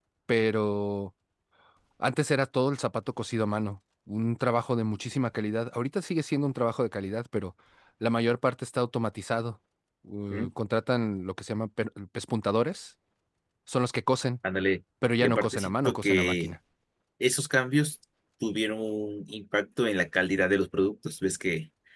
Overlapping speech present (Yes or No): Yes